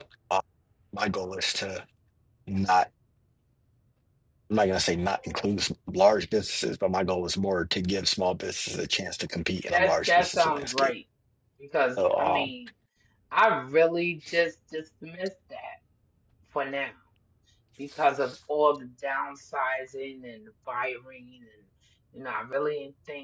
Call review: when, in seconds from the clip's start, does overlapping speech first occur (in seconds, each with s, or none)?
9.7 s